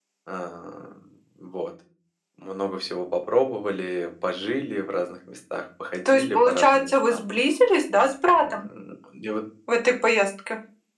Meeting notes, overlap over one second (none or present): present